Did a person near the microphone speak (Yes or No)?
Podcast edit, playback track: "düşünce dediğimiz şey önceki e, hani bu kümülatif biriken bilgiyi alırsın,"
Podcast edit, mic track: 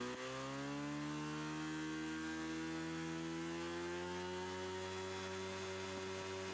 No